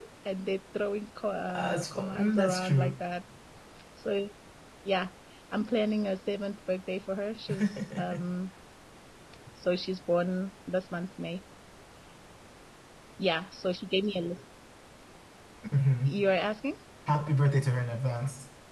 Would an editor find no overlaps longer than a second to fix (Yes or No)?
No